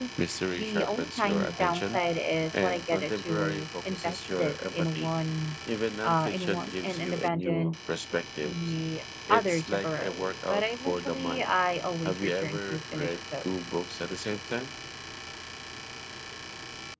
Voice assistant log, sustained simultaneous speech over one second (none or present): present